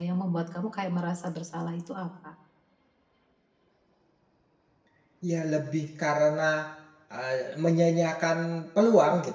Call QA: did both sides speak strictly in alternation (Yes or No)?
Yes